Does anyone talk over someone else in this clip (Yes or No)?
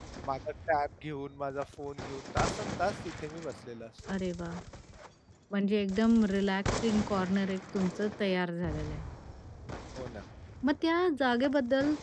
No